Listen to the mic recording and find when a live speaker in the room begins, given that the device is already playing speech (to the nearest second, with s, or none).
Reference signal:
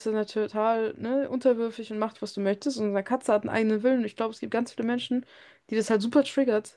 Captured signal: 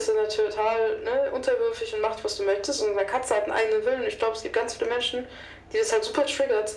none